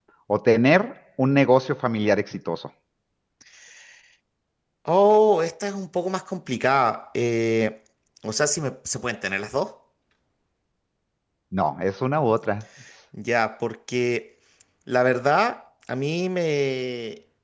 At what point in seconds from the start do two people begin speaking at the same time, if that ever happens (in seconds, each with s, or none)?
none